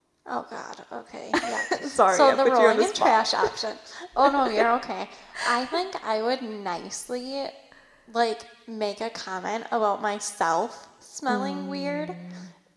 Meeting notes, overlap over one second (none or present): present